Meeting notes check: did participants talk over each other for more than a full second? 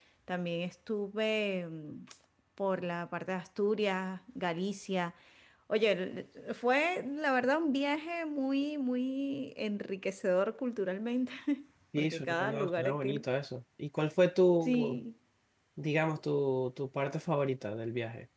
Yes, from 12.0 s

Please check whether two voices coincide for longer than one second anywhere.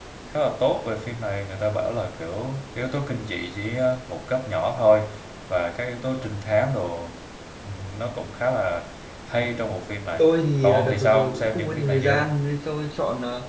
Yes, from 10.6 s

